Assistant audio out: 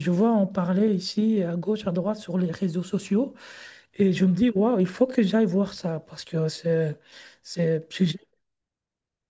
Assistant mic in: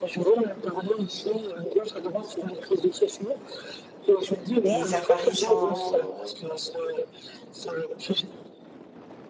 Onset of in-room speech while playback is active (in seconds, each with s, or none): 4.4 s